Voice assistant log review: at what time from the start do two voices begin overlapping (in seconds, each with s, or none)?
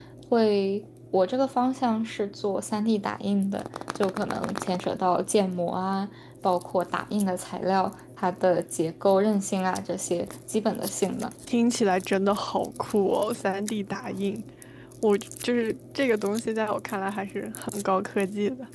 none